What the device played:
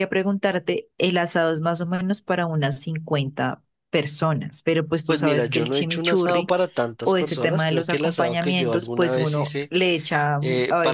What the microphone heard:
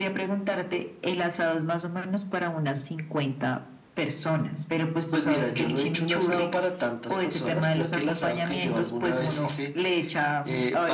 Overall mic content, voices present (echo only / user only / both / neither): echo only